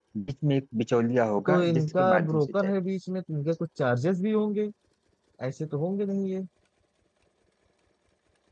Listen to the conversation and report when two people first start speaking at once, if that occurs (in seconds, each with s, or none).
1.5 s